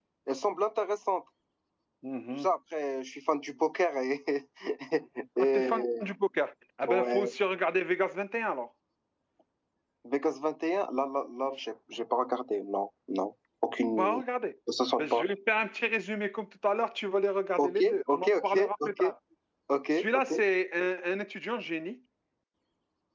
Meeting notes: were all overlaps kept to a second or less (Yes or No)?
No